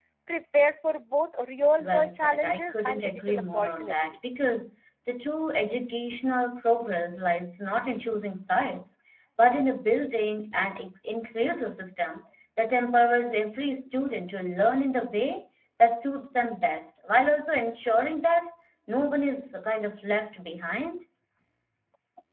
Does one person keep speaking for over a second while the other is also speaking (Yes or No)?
Yes